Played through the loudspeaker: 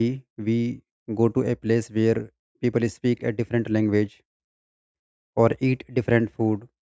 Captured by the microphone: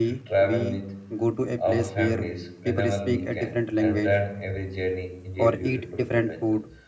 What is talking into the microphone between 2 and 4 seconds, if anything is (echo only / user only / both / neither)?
both